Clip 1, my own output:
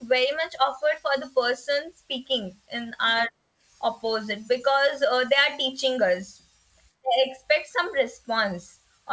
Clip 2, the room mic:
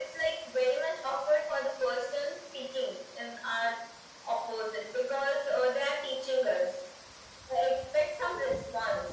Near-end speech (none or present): none